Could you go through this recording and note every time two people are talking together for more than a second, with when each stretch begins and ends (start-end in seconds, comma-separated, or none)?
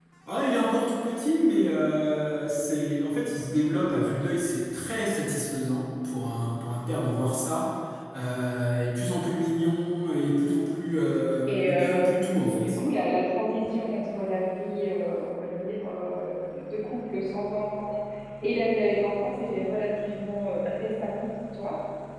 11.5-12.8